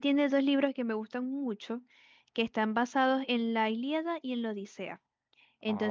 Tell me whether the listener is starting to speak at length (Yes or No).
No